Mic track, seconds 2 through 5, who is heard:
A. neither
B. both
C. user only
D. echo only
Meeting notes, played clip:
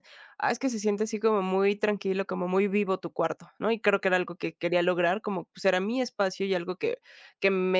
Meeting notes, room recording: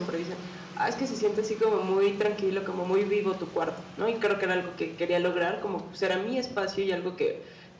D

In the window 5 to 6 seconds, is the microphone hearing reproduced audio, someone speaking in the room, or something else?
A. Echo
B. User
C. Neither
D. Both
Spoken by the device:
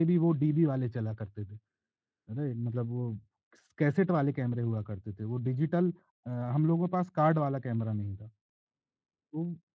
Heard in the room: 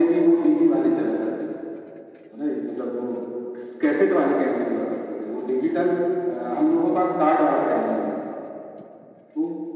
A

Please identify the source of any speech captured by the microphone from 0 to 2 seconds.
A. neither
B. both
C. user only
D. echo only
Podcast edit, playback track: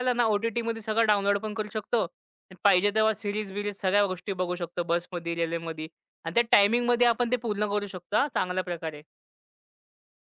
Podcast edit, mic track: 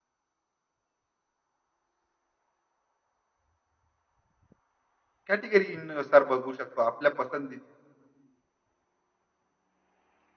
A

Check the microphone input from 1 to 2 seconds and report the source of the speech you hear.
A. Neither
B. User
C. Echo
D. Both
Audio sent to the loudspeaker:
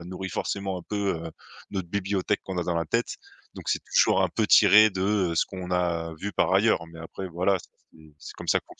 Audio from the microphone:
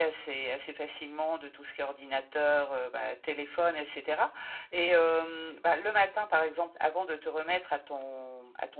B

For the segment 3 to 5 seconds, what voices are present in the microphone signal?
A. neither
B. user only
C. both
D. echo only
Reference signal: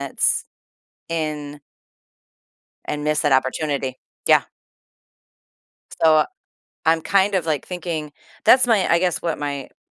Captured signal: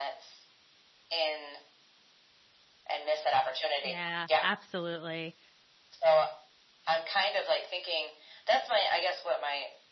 C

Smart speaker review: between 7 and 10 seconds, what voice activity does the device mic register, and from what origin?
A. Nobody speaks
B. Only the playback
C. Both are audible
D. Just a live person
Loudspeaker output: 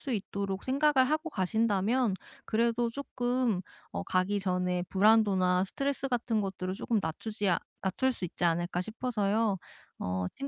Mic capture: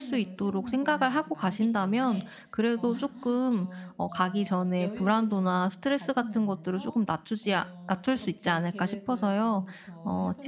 C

